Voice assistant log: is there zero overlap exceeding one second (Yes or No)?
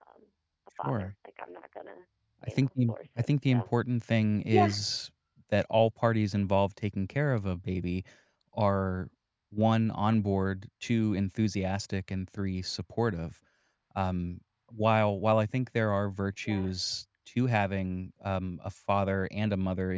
No